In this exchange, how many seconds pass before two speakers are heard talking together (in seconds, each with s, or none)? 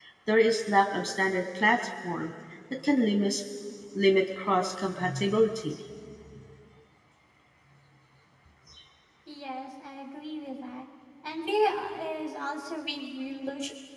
none